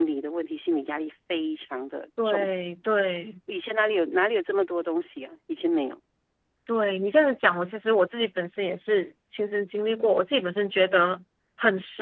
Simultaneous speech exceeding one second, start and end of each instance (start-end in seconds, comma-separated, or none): none